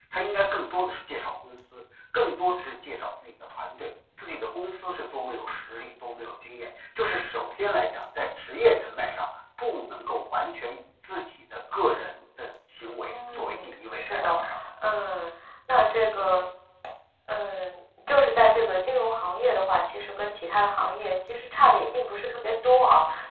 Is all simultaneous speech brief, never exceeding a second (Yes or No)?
No